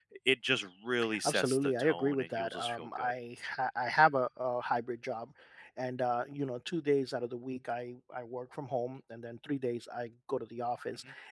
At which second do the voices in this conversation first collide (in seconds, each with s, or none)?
1.2 s